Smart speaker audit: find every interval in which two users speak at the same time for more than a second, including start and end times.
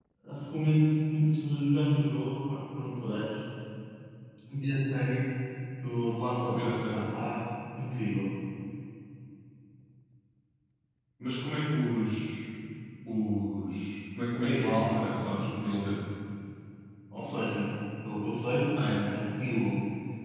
14.4-15.9

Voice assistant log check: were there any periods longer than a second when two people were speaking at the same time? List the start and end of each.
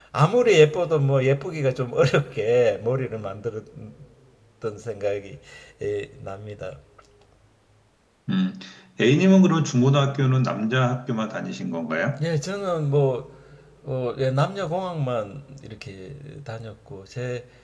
none

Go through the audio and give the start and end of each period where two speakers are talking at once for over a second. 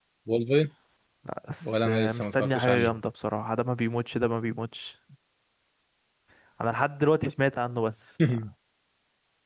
1.6-2.9

